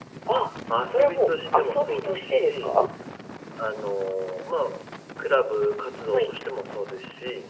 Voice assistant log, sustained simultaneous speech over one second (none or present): present